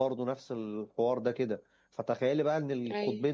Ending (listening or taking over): listening